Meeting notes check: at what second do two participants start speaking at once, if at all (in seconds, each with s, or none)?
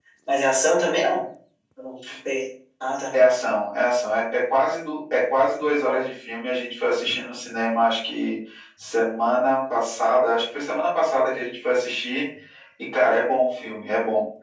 none